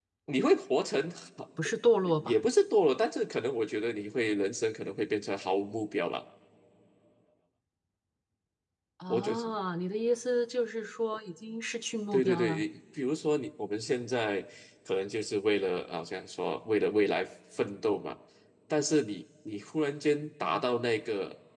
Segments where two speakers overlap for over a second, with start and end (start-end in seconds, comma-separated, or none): none